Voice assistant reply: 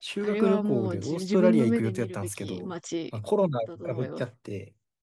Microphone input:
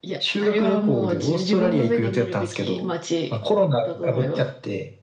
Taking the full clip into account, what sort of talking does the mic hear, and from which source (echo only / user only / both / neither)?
echo only